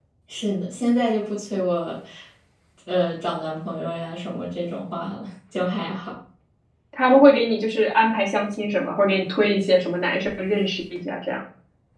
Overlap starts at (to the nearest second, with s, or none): none